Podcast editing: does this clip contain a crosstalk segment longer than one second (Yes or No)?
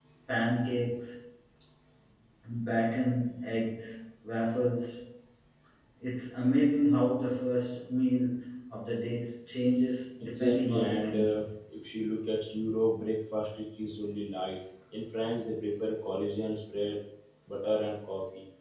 Yes